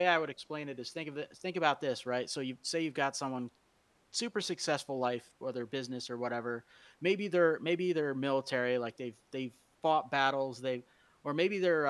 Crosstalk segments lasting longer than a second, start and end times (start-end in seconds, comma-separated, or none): none